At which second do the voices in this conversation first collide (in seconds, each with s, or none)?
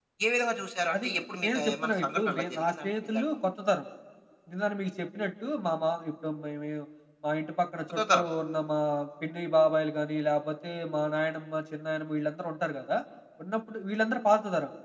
0.9 s